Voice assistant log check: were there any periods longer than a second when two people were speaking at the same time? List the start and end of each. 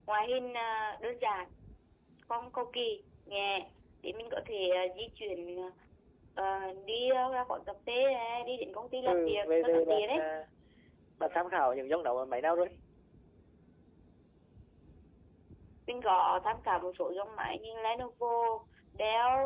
9.0-10.3

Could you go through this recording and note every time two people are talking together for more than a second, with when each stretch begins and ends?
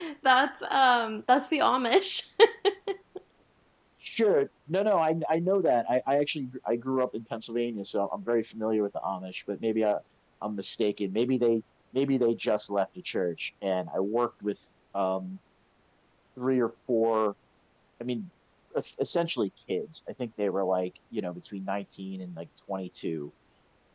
none

